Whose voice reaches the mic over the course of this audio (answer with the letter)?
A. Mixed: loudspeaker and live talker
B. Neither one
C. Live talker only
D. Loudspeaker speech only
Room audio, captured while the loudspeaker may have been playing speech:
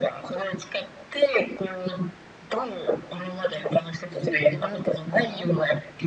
A